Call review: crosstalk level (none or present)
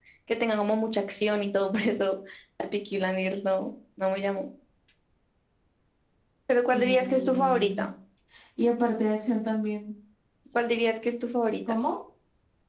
present